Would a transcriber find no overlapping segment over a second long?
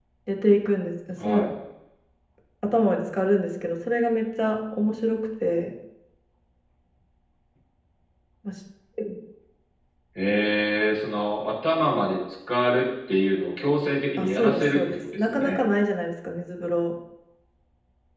No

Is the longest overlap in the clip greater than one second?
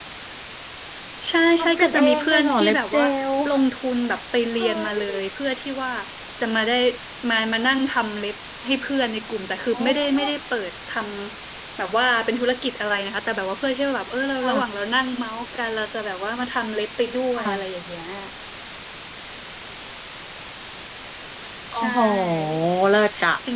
Yes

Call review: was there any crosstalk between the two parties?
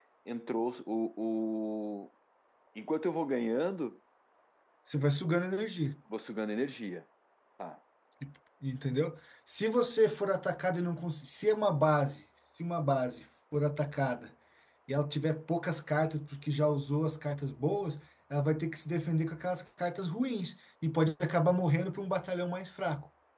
No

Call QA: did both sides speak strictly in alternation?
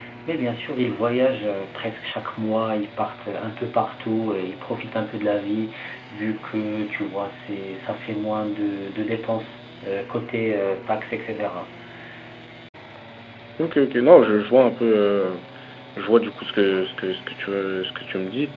Yes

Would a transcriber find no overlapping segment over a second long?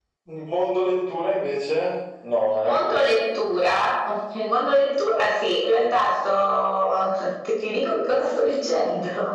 Yes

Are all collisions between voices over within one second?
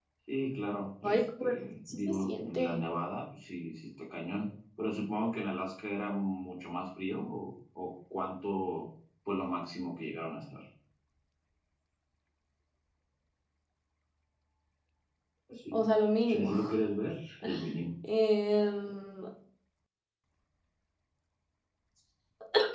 No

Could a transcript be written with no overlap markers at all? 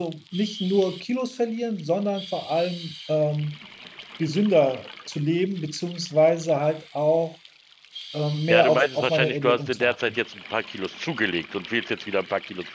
No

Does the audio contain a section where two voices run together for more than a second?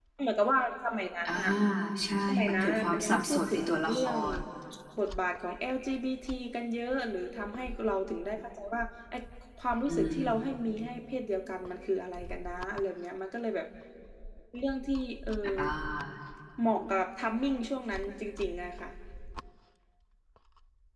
Yes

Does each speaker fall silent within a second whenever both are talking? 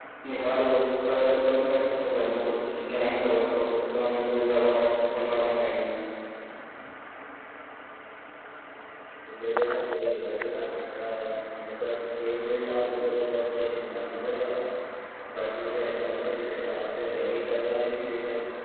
Yes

